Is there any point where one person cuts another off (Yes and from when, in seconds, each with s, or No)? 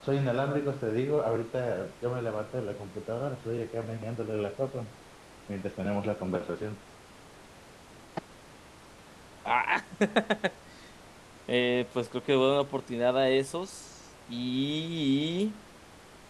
No